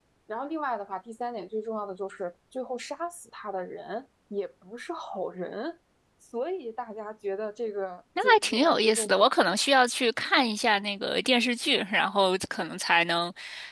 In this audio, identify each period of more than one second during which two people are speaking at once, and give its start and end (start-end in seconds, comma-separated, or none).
8.2-9.4